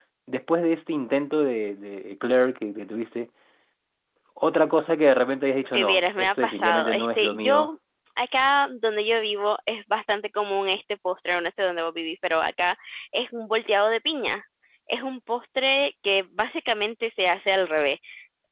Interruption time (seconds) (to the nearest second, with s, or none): 6 s